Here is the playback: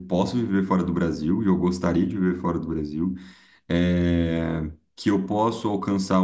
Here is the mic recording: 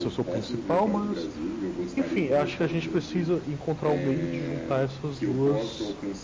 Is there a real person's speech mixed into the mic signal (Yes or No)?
Yes